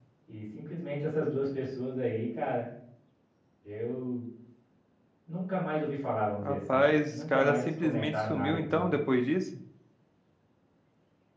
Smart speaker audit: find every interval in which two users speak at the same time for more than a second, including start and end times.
6.4-8.9

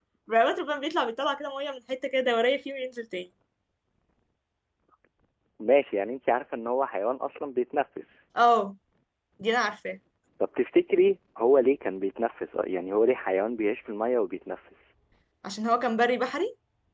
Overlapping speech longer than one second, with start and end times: none

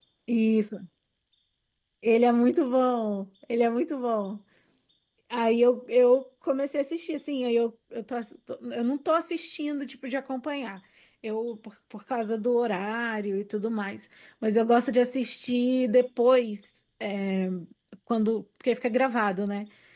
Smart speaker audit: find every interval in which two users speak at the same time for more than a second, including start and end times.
none

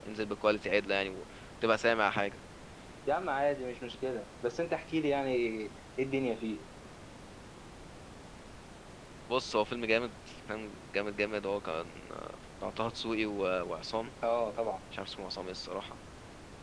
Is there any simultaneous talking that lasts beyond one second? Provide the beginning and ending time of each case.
none

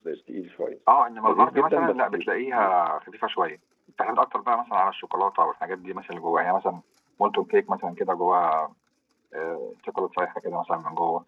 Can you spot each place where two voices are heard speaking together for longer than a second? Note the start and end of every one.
1.2-2.8

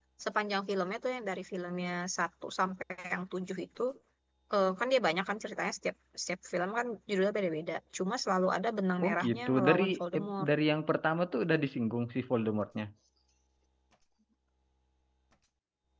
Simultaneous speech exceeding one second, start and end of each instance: 9.0-10.5

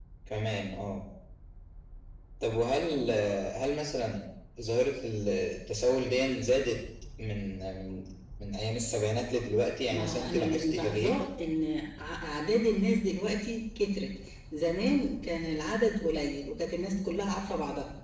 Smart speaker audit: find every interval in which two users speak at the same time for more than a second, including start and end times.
9.9-11.2

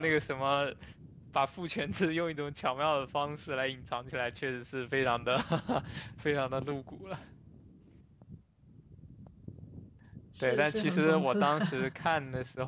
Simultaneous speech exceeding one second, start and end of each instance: 10.4-12.1

